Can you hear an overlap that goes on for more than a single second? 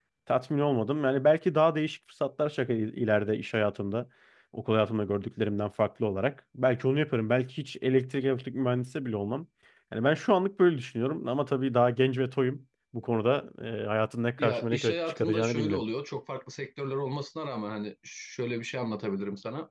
Yes, from 14.4 s

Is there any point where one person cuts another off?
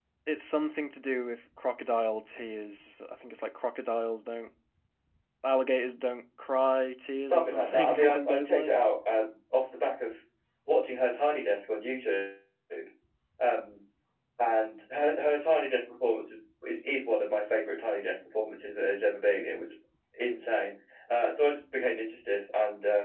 Yes, from 7.2 s

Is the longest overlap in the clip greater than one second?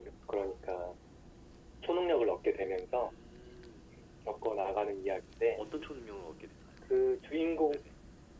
No

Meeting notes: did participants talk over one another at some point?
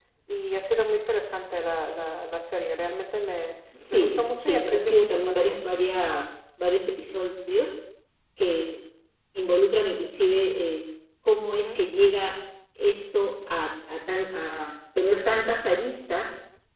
Yes, from 3.9 s

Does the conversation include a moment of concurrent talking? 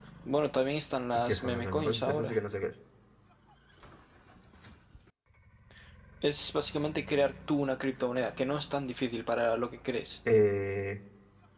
Yes, from 1.1 s

